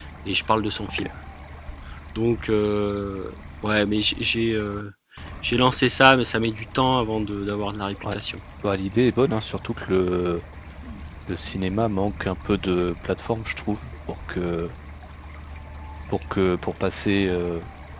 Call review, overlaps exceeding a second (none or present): none